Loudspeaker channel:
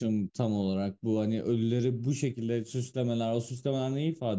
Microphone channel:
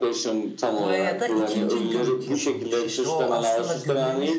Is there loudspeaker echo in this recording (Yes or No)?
Yes